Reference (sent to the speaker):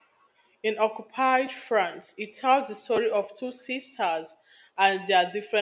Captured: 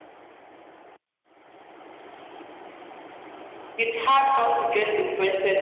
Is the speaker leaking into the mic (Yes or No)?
No